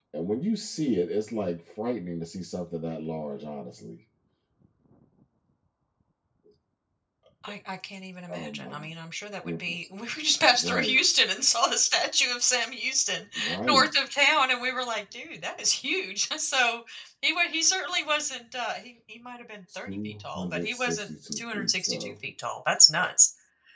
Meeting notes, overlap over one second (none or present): present